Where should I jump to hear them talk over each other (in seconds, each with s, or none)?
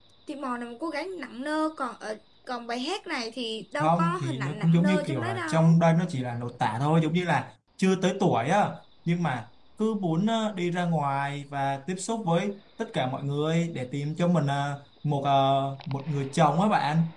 3.8 s